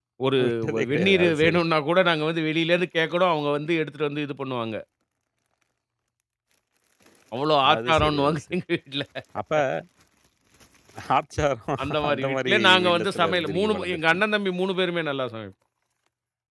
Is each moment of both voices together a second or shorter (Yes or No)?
No